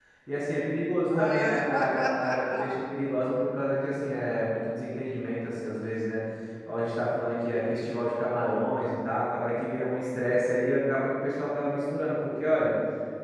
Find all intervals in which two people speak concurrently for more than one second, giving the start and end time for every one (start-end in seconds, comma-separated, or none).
1.0-2.8